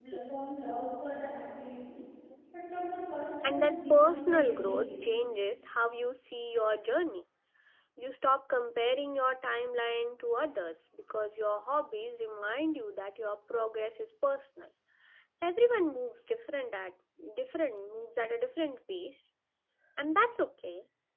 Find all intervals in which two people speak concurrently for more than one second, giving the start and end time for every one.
3.4-4.9

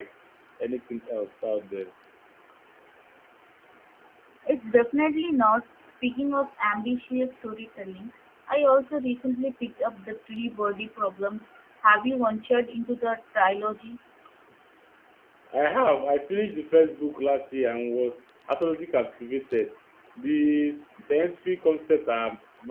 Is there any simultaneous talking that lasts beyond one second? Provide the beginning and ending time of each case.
none

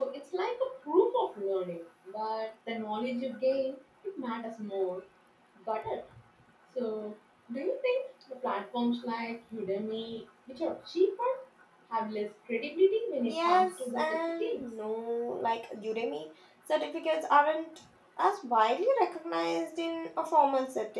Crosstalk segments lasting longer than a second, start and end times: 13.2-14.6

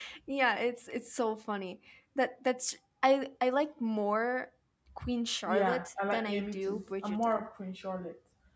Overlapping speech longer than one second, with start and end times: 5.5-7.5

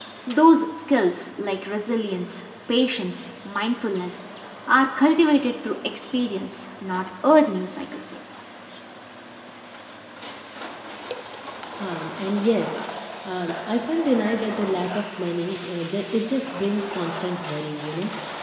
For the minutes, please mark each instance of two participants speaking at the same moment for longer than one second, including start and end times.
none

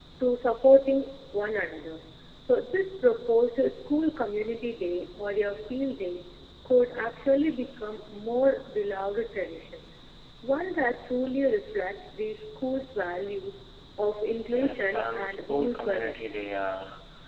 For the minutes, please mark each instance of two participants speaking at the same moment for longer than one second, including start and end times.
14.5-16.4

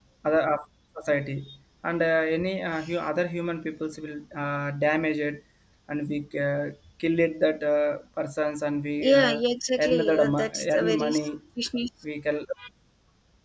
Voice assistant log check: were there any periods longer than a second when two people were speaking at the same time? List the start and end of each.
9.8-11.3

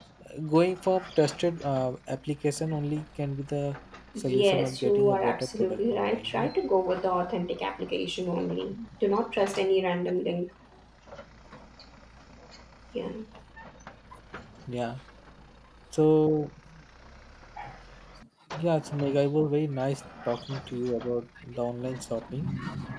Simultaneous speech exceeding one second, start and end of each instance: 4.2-6.5

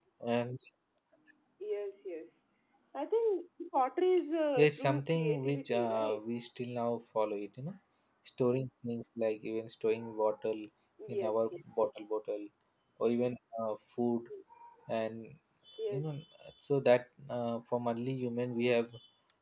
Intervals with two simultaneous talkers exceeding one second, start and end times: 4.6-6.2

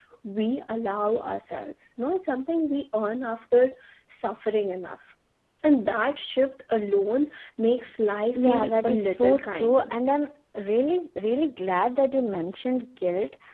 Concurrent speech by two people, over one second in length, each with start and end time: 8.3-9.9

